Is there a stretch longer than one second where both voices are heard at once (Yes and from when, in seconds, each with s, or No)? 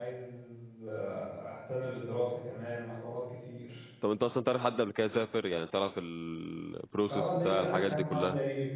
Yes, from 7.1 s